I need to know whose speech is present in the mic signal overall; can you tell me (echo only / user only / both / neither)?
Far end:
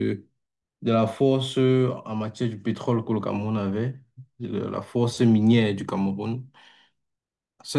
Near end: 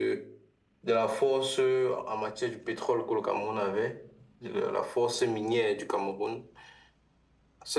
echo only